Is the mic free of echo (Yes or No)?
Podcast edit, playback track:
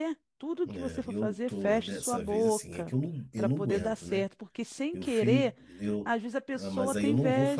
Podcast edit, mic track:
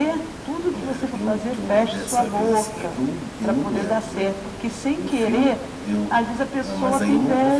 No